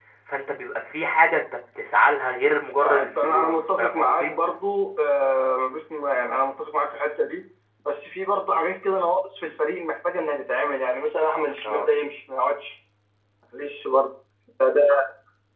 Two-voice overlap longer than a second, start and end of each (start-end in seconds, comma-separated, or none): 2.8-4.3